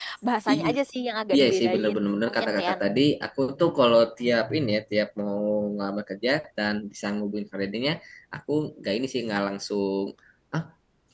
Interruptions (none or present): present